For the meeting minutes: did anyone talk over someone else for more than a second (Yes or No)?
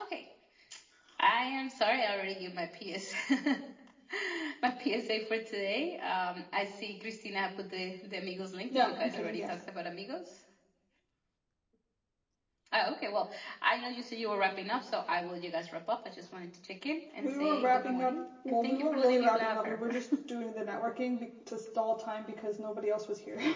Yes